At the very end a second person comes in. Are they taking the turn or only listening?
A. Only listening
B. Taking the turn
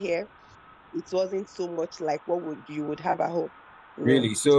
B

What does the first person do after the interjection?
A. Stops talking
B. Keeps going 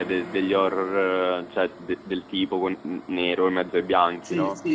A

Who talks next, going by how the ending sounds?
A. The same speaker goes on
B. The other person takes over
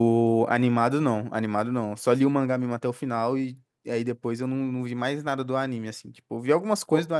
A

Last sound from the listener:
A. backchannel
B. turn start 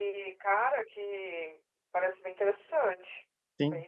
B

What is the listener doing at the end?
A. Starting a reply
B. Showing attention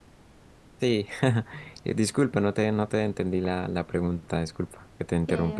A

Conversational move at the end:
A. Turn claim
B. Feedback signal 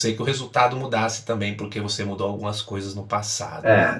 A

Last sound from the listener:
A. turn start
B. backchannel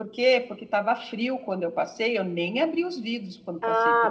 A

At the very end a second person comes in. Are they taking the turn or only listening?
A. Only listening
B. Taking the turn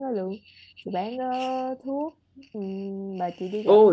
B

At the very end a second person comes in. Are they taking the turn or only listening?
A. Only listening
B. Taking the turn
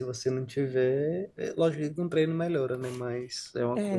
B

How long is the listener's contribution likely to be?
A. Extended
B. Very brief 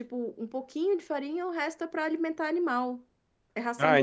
A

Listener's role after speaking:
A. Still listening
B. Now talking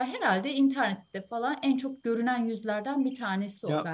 B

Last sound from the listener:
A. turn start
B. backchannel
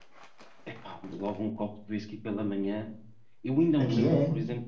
B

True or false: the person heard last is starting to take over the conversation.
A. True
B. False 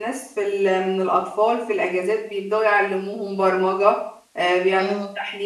B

